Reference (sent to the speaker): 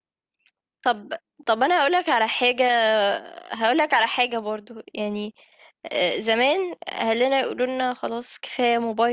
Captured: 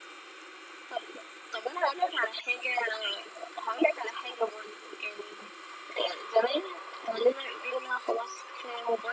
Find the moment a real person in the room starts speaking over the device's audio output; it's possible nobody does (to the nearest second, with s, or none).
none